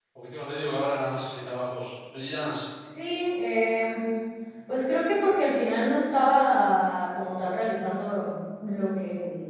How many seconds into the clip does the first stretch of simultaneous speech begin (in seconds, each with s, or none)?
none